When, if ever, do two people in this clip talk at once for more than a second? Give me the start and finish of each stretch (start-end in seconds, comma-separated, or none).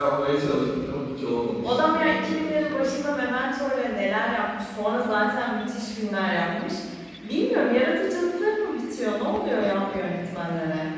1.6-3.0